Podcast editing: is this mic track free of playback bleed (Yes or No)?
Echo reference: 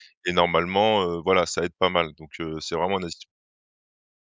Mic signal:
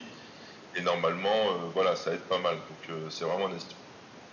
No